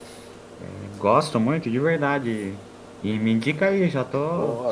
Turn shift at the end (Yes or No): Yes